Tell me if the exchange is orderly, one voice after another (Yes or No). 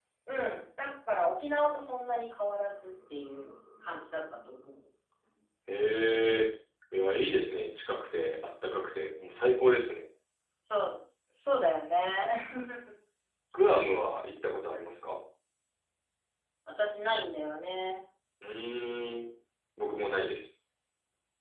Yes